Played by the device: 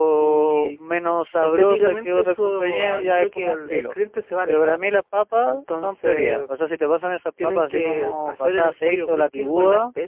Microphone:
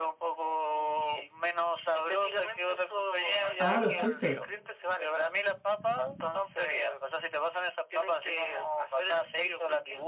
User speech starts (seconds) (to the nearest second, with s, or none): 4 s